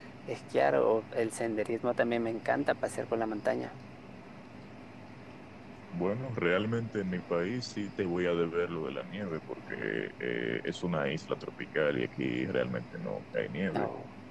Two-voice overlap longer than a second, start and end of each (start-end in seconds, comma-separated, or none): none